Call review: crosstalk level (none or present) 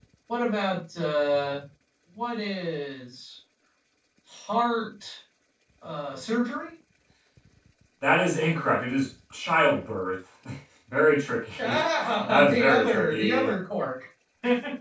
present